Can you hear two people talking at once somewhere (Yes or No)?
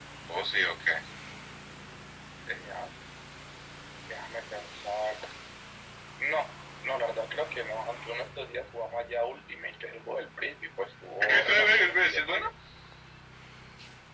Yes